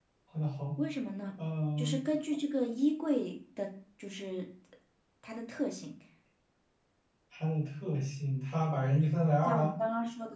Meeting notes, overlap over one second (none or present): none